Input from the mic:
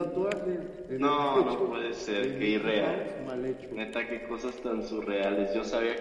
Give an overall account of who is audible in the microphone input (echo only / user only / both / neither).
echo only